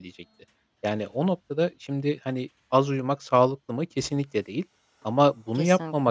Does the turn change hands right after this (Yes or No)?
No